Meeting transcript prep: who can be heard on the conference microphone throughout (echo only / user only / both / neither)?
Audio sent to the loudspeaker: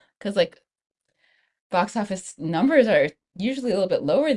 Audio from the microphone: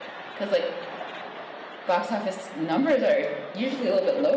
echo only